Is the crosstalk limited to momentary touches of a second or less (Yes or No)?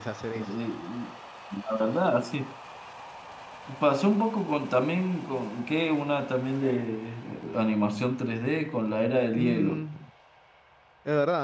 Yes